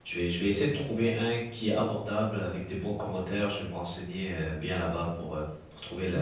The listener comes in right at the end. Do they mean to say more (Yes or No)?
Yes